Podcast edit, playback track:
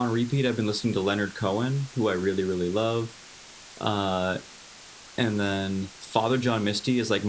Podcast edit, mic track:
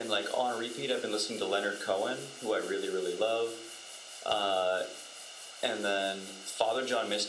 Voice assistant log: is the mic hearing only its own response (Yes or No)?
Yes